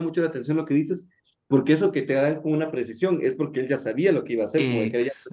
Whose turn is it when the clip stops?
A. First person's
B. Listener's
A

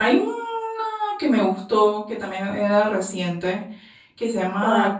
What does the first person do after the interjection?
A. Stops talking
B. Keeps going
B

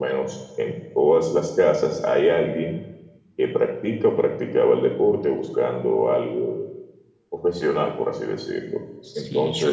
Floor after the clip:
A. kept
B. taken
B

